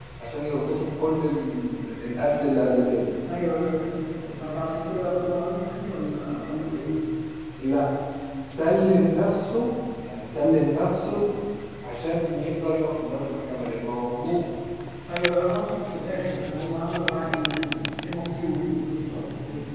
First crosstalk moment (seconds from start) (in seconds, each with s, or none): none